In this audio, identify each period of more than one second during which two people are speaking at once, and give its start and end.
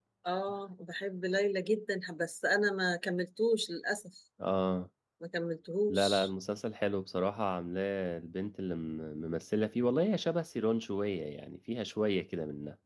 none

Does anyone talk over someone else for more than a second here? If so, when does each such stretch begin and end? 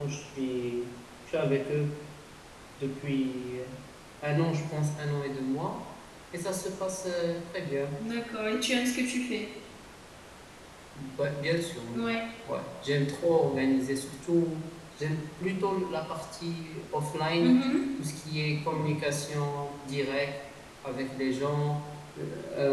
none

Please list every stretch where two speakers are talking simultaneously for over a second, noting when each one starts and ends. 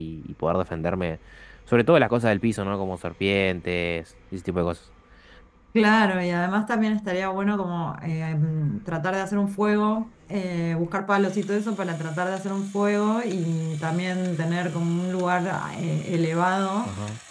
none

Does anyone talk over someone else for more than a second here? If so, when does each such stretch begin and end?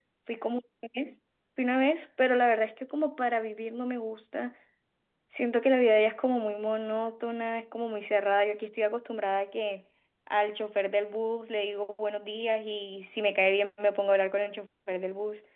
none

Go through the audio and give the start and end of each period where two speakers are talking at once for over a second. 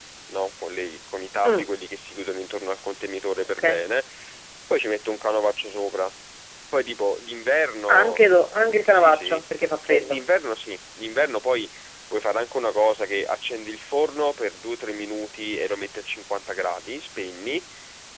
none

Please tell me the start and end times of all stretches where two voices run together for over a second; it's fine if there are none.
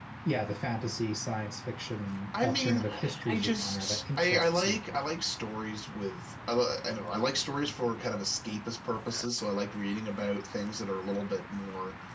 2.4-4.8

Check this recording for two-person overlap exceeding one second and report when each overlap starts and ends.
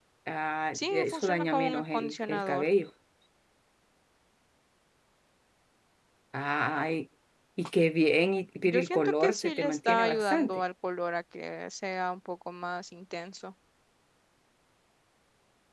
0.8-2.7, 8.6-10.6

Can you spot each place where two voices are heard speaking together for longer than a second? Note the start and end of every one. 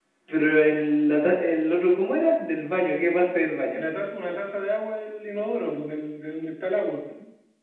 none

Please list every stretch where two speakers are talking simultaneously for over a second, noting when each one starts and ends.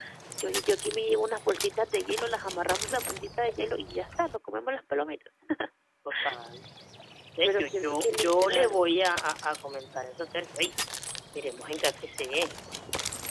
7.4-8.8

